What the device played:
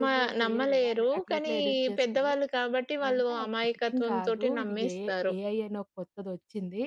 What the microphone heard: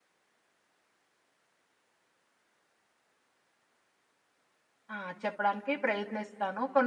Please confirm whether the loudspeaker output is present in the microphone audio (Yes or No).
No